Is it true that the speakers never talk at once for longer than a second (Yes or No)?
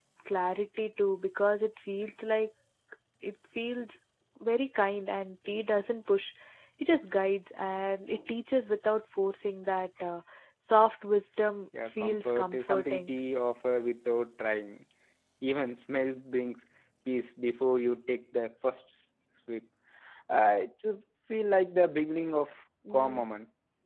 No